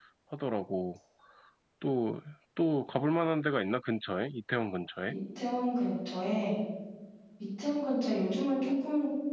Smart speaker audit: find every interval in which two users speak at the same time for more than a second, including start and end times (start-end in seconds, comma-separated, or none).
none